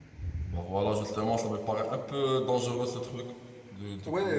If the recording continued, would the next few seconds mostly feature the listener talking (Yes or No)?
Yes